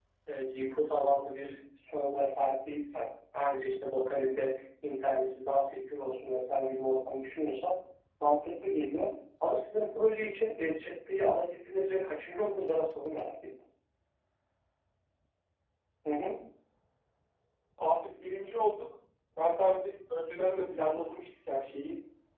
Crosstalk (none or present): none